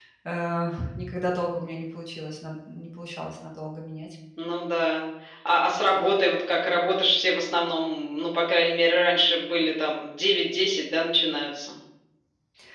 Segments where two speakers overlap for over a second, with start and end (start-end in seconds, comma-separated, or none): none